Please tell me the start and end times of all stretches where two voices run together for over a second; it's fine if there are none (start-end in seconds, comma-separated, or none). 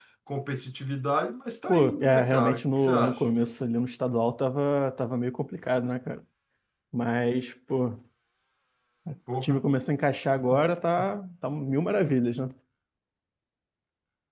1.7-3.2